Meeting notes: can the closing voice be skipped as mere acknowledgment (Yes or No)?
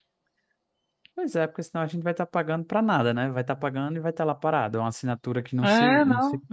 No